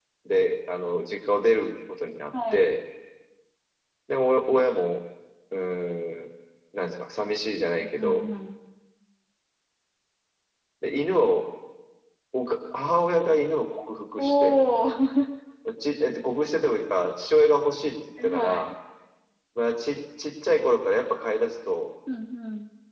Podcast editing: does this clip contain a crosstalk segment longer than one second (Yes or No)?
No